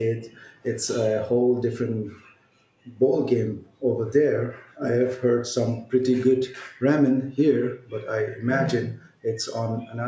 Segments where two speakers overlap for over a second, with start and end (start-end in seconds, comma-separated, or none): none